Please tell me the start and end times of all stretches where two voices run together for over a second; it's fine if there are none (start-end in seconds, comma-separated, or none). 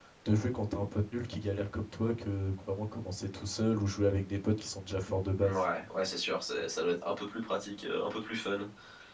none